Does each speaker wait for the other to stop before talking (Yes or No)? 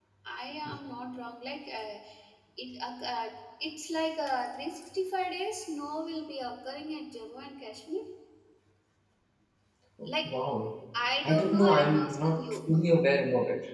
No